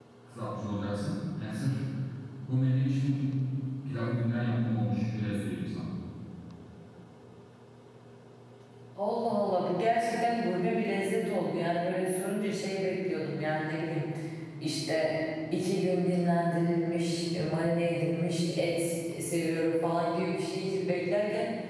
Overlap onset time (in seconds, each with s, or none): none